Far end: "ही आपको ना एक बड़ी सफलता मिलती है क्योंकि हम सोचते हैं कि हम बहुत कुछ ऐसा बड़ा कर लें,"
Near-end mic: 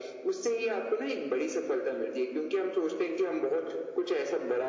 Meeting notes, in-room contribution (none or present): none